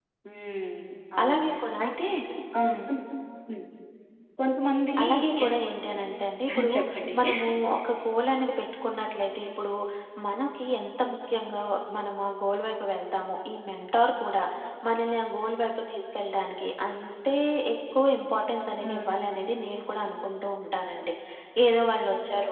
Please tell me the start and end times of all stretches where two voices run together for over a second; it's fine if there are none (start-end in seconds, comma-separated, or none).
none